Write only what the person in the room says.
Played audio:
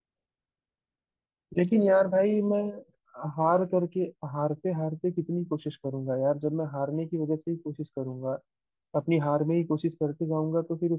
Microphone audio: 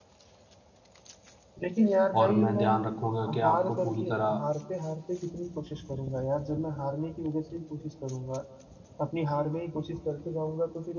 और मैं ध्यान रखूँगा कि आपको पूरी तरह

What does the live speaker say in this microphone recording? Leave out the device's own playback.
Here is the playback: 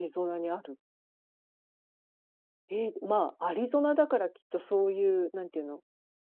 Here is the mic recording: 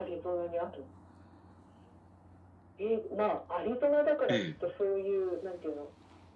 ええ、

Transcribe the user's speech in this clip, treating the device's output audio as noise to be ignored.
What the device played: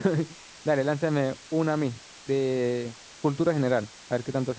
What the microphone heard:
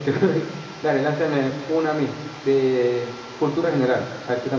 none

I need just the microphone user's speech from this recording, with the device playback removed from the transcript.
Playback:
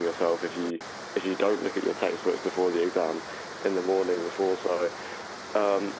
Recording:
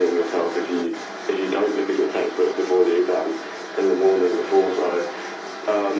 none

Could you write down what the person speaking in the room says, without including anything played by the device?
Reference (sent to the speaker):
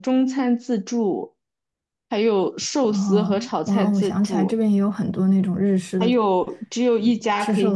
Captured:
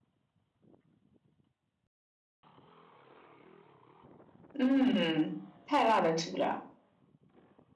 嗯，太辣的吃不了。

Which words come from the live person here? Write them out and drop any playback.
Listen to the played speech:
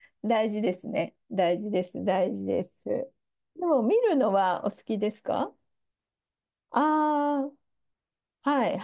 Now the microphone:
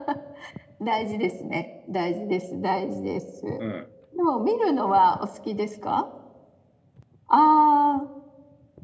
うん。

